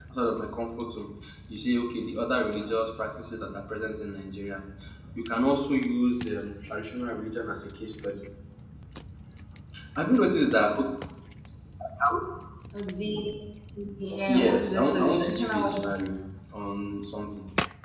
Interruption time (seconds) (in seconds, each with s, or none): 14.3 s